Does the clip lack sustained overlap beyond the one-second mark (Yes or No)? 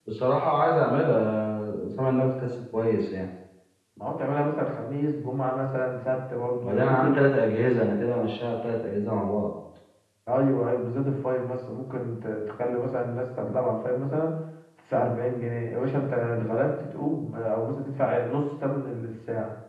Yes